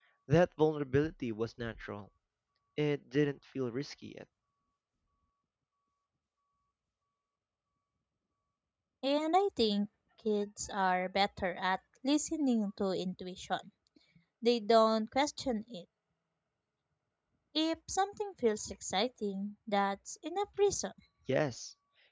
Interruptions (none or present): none